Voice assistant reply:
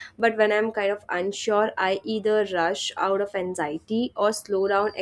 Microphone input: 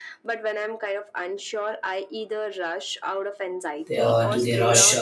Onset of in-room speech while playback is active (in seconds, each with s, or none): 3.9 s